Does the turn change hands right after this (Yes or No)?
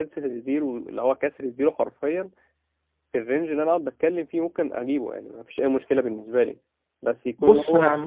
Yes